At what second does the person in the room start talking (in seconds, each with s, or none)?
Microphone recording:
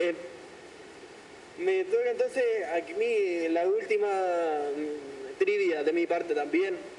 none